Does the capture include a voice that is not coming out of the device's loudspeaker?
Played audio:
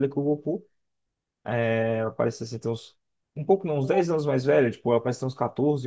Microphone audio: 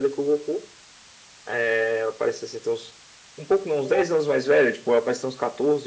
No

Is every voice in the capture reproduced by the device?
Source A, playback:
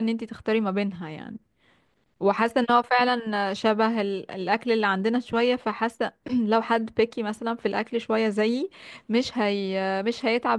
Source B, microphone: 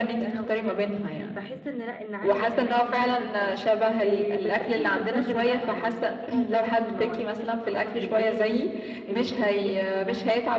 No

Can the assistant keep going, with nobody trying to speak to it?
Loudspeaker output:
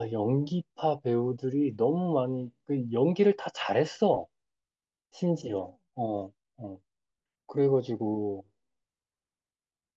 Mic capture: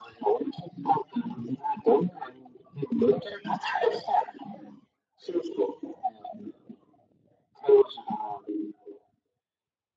Yes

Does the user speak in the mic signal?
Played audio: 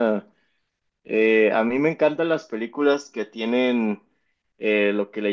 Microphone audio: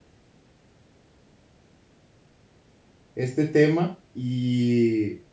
Yes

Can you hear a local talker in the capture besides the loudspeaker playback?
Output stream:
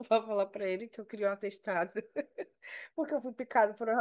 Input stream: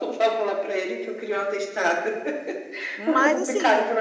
Yes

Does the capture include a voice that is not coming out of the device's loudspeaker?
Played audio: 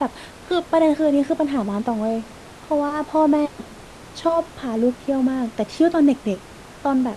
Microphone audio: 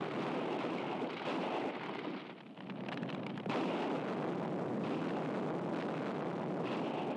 No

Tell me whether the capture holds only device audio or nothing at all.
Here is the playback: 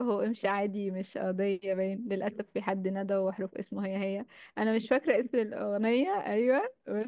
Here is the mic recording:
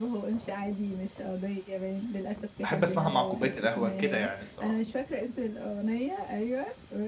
No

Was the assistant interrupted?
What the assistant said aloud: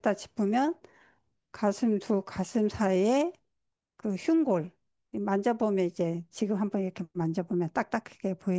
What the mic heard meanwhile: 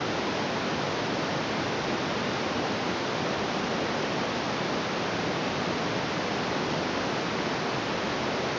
No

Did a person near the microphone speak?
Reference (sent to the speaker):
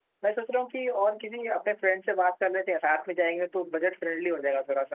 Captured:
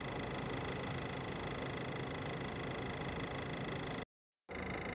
No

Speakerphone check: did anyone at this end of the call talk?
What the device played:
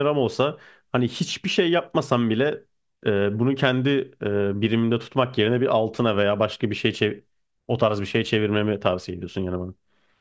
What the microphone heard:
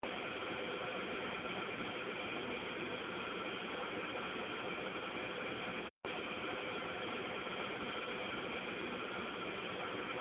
No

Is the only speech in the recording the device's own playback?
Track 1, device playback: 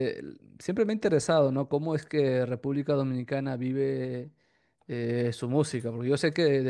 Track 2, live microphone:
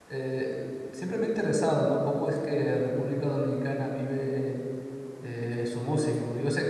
Yes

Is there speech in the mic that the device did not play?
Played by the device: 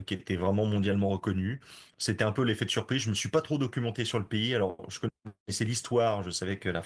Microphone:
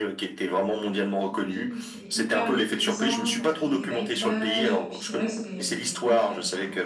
Yes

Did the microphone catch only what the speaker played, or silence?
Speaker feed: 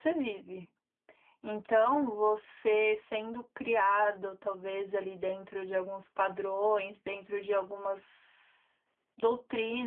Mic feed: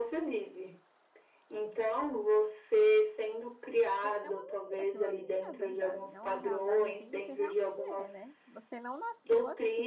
No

